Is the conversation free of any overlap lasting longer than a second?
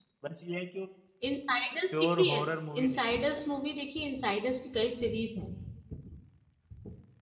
Yes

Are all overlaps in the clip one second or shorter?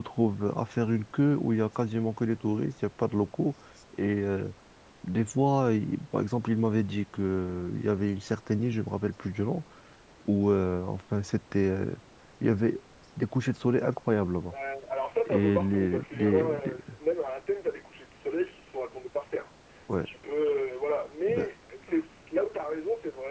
No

